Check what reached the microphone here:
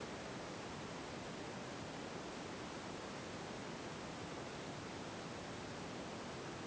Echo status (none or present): none